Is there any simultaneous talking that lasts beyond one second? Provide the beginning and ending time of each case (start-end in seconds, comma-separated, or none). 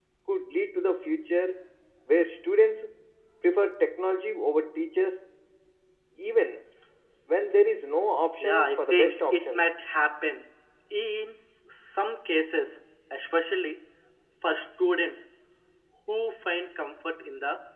8.4-9.6